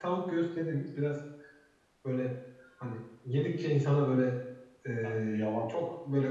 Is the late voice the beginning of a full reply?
No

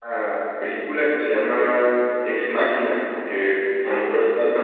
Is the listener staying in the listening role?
Yes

